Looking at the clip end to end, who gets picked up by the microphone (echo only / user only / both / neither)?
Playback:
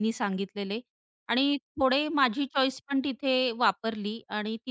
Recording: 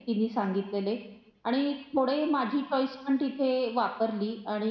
echo only